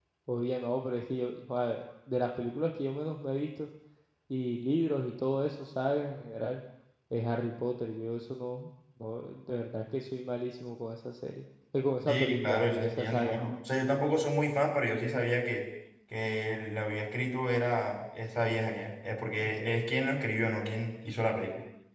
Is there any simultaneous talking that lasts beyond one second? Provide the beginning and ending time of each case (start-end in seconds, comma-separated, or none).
12.1-13.4